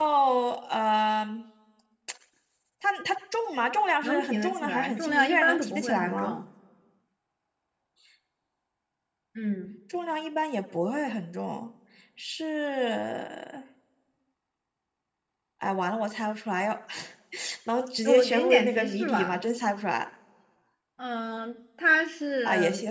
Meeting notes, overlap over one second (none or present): present